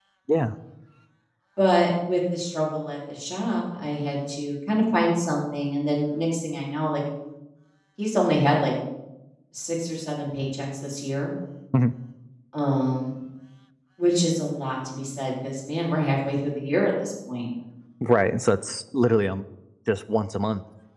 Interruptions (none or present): none